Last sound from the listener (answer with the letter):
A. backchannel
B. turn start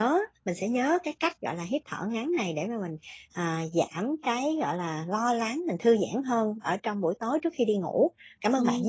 B